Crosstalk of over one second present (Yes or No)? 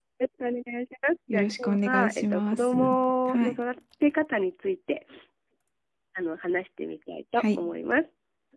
Yes